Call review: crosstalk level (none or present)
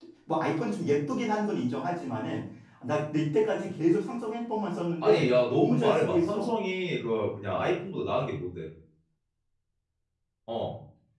present